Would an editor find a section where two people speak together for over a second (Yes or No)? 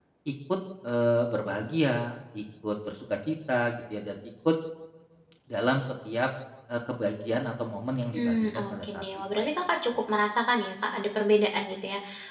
Yes